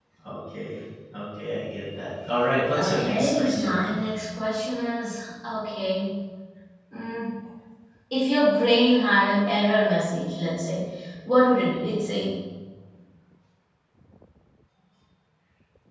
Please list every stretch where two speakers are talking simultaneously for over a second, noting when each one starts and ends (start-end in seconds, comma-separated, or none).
2.8-4.0